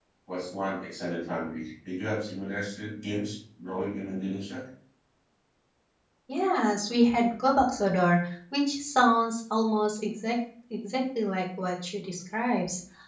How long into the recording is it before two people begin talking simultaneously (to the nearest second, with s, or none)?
none